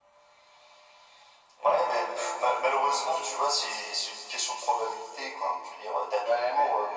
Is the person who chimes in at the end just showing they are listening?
Yes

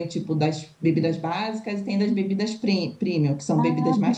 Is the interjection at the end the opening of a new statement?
Yes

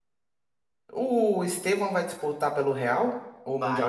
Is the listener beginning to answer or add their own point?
Yes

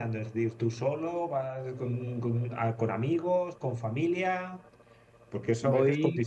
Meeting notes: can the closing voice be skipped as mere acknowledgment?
Yes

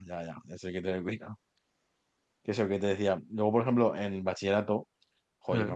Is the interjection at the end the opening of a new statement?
No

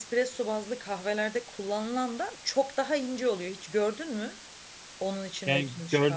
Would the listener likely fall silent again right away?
No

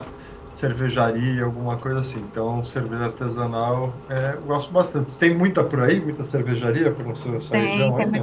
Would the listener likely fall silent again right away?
No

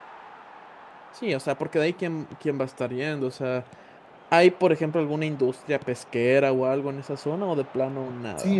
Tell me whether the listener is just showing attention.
No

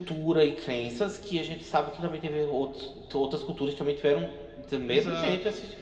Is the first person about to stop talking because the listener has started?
Yes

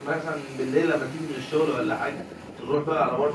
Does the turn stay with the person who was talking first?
Yes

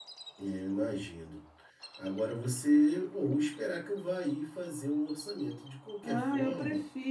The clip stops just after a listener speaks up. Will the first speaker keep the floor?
No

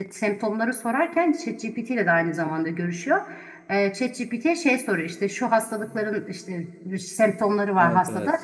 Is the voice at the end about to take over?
No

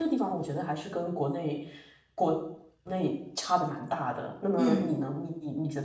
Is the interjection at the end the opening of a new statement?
No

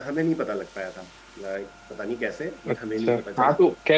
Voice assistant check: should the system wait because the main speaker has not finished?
No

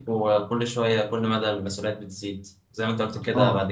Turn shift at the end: No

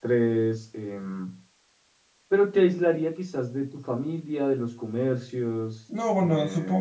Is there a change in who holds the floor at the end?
Yes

